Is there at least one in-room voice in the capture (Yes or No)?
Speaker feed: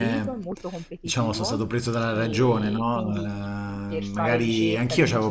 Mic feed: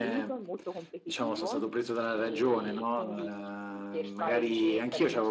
No